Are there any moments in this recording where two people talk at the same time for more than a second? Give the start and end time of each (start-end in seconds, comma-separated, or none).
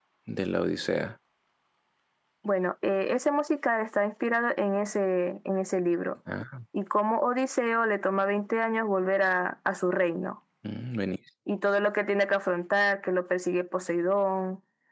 none